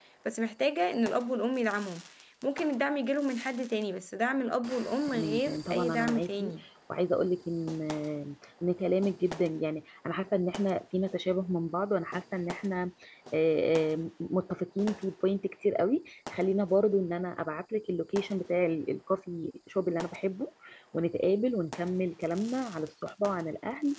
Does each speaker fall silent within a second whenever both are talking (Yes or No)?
No